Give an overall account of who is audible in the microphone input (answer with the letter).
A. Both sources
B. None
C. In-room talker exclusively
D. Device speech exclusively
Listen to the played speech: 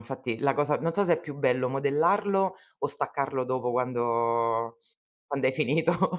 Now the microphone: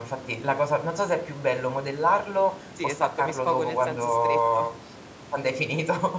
A